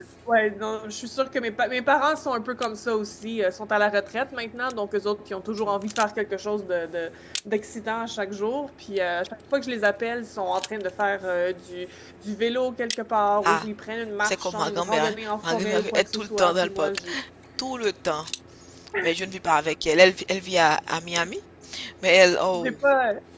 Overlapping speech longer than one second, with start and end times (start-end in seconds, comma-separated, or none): 14.2-17.0